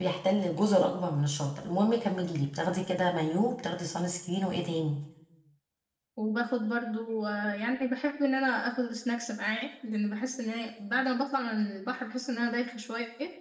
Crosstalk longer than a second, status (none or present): none